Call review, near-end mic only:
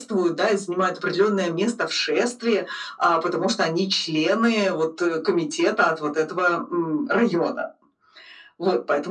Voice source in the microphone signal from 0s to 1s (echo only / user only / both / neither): echo only